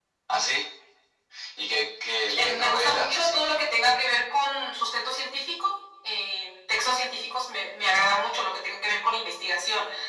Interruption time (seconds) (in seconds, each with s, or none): 2.4 s